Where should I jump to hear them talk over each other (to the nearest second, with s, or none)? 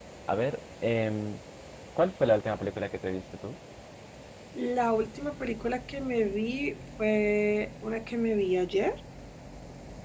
none